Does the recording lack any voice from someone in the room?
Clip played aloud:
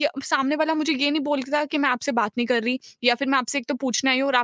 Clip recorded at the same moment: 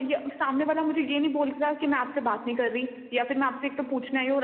Yes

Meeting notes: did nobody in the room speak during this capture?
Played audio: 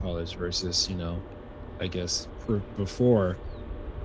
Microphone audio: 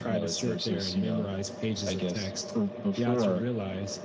No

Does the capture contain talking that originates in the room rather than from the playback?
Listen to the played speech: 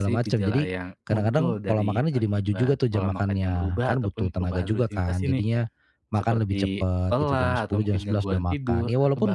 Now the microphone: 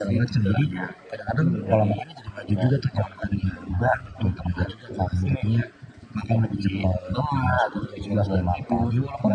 No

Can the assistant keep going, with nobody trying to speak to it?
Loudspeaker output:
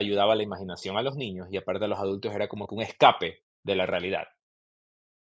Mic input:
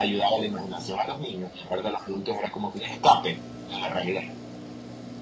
Yes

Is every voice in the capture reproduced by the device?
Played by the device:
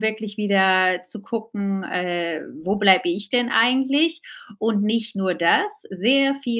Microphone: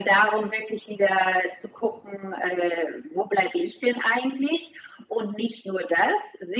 Yes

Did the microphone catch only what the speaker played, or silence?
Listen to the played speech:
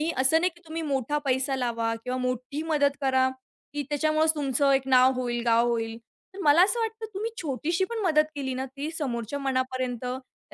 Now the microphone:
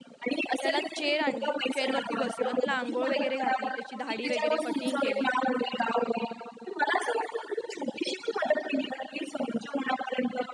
No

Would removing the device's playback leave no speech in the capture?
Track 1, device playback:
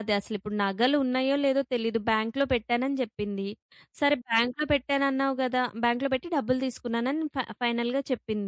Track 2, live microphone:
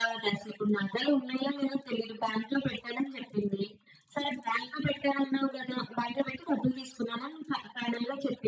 Yes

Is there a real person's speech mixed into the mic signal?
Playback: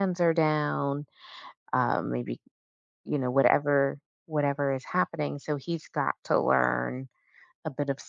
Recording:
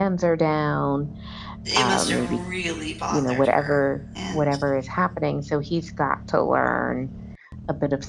Yes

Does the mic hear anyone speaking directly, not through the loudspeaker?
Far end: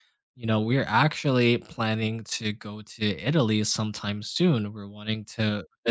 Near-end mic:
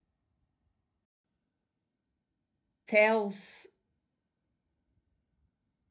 Yes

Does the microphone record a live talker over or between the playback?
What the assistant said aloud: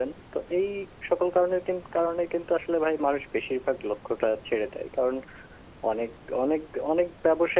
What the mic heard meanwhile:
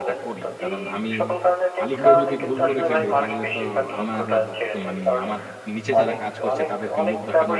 Yes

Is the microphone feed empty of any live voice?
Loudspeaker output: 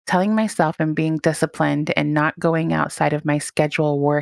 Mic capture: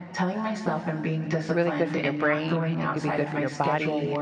No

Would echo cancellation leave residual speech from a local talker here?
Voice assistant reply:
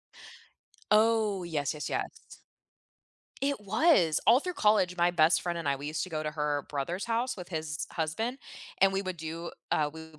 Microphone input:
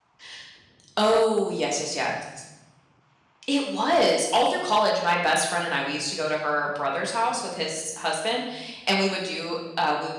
No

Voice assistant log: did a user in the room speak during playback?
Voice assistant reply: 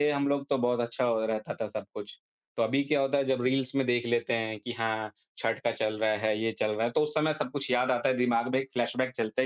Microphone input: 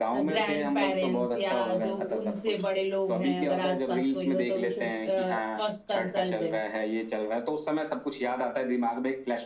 Yes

